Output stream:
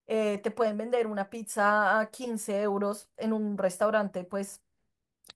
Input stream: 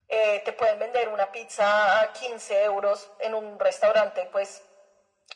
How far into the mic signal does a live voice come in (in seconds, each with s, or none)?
none